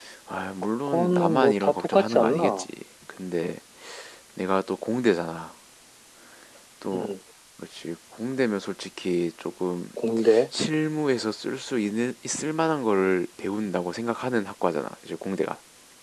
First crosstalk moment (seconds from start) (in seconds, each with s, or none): 0.9 s